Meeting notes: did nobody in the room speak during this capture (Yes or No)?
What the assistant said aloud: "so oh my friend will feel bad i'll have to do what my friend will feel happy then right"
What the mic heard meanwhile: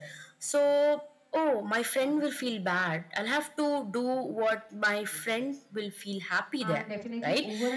No